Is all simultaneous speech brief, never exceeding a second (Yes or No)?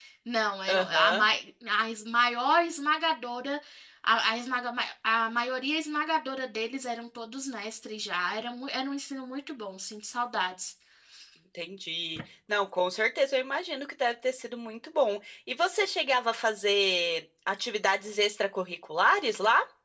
Yes